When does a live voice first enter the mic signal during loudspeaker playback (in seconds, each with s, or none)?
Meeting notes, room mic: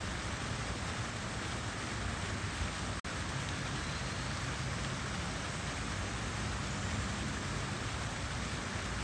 none